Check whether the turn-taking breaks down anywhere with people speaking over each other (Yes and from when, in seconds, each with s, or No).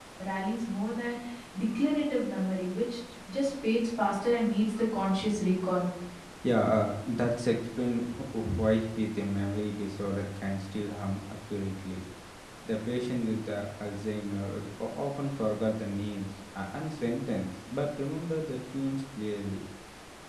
No